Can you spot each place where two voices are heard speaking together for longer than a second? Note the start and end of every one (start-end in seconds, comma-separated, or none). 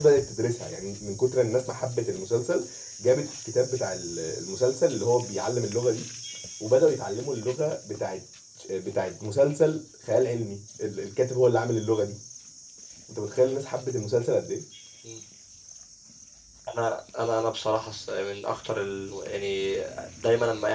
none